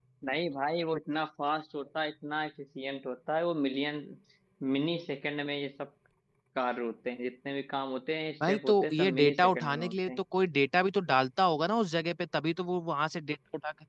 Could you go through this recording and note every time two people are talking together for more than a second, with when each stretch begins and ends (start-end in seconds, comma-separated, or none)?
8.5-10.1